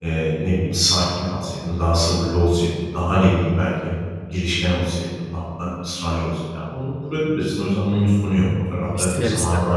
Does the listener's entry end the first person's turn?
No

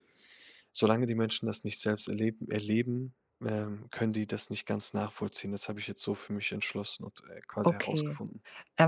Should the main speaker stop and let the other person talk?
Yes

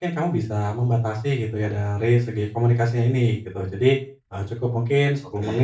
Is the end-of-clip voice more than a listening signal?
No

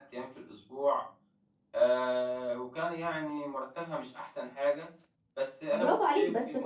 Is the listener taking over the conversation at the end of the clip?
Yes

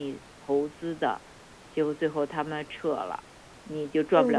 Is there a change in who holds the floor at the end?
No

